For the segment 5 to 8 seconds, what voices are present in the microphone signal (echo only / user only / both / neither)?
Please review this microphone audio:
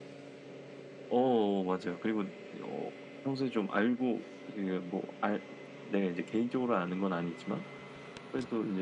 echo only